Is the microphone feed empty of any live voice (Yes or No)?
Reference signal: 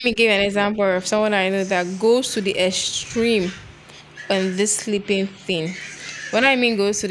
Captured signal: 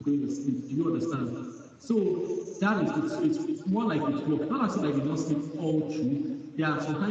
No